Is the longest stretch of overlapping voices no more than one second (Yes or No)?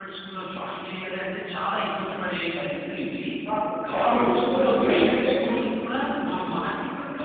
No